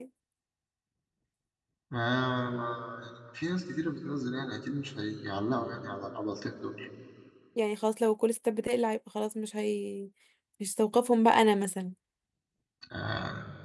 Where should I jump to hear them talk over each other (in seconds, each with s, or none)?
none